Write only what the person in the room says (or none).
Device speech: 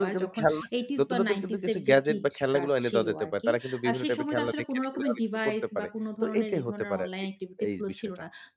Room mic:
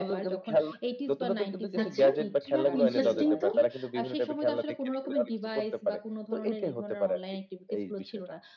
আচ্ছা, বাহ! ইন্টারেস্টিং তো।